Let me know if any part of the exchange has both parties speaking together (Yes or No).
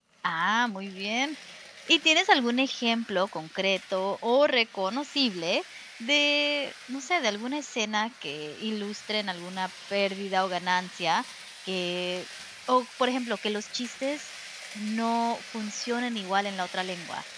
No